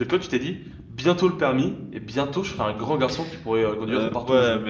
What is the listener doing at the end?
taking over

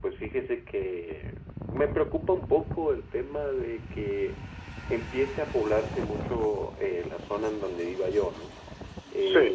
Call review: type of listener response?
listening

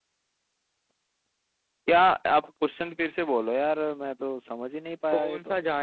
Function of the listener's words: taking over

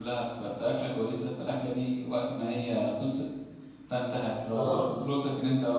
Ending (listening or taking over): listening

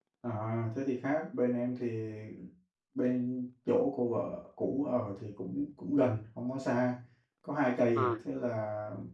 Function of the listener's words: listening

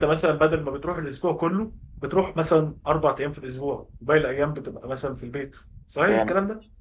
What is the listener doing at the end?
taking over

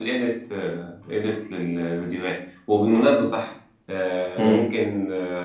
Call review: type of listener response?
listening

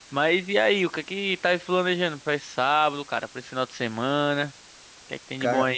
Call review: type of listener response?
taking over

